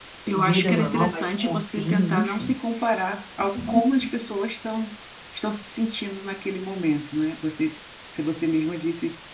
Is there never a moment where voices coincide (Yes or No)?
No